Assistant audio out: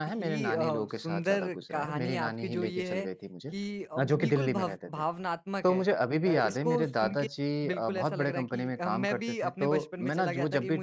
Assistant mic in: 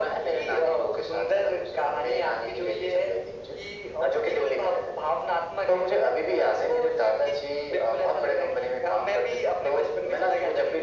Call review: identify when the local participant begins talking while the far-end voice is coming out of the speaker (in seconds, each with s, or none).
none